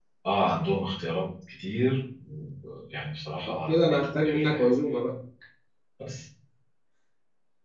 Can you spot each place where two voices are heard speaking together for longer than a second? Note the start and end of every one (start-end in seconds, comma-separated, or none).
3.5-4.7